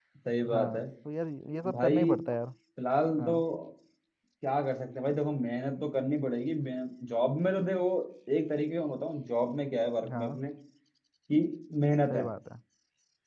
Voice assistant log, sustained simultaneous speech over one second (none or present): none